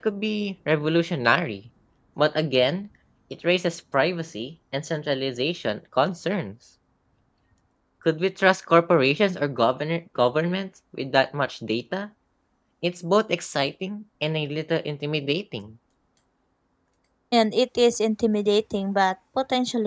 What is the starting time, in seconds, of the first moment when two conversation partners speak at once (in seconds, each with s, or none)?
none